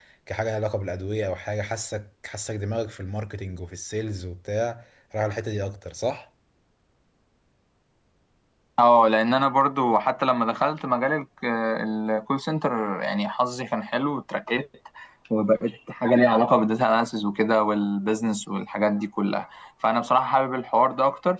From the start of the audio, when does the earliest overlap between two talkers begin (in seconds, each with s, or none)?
none